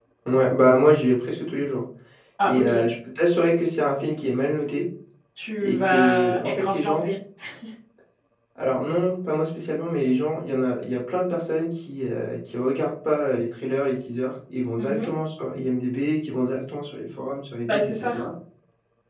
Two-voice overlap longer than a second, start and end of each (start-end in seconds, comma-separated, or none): 5.6-7.1